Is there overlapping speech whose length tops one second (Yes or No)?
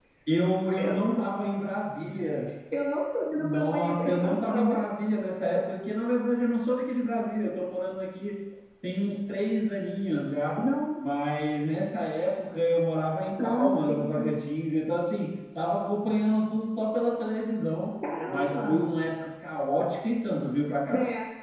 Yes